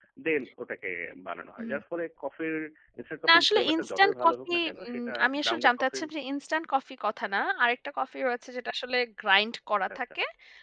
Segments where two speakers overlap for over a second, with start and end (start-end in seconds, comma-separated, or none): 3.3-6.0